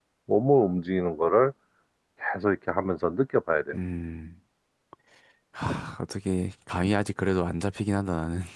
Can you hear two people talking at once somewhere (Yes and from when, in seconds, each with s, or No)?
No